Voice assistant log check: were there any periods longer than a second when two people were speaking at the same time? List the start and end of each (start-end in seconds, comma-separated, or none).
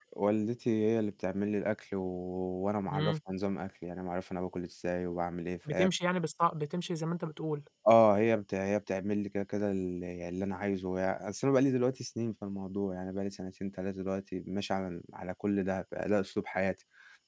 none